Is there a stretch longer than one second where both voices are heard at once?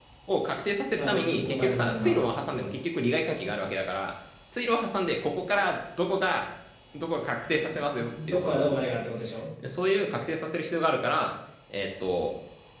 Yes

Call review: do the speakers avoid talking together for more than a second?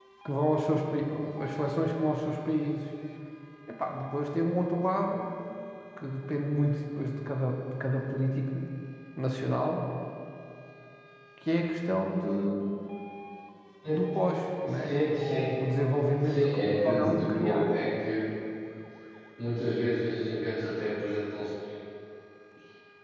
No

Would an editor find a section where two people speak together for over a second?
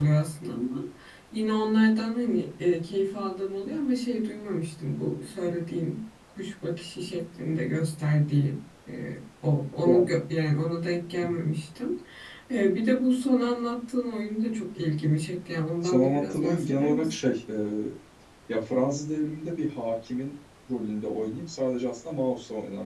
Yes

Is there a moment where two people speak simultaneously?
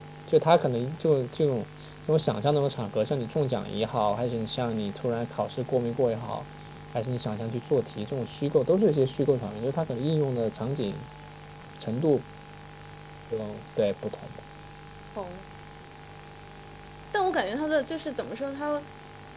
No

